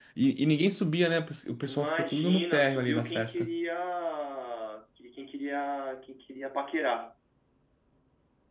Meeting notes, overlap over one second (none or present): present